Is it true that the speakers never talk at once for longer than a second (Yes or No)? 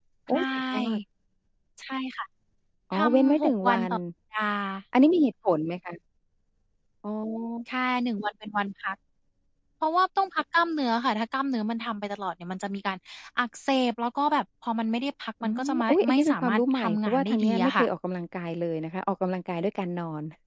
No